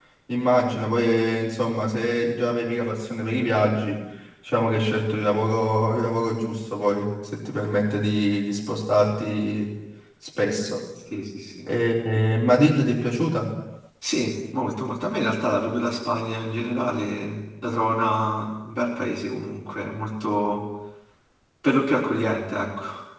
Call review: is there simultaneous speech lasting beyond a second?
No

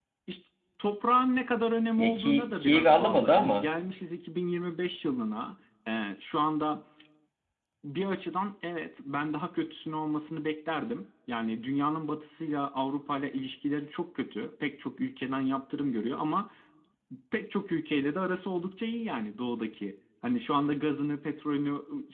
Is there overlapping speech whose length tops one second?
Yes, from 2.0 s

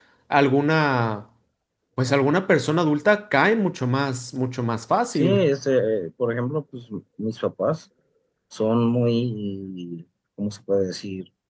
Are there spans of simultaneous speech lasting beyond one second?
No

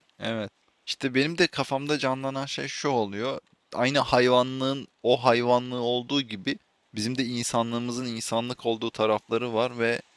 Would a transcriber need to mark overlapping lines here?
No

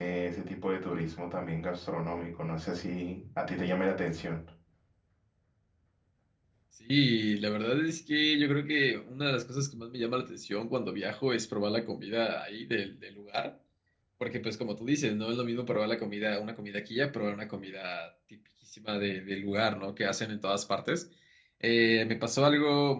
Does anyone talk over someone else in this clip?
No

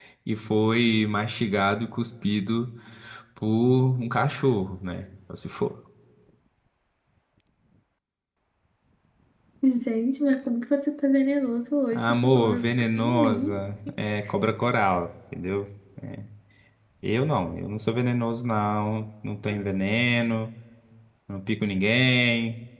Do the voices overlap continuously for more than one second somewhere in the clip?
Yes, from 11.9 s

